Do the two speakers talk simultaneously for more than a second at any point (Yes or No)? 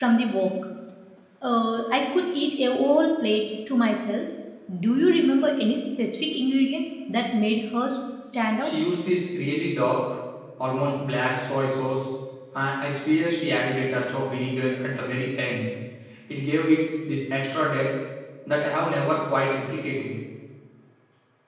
No